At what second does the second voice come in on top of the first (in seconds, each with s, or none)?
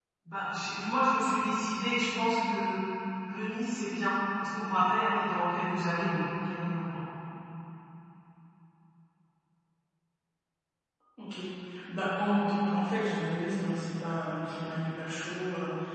none